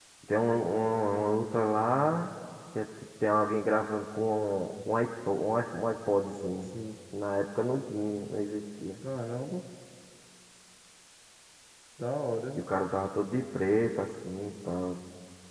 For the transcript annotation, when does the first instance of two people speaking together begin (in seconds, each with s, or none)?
none